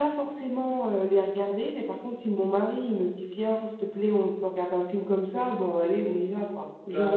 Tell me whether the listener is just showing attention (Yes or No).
No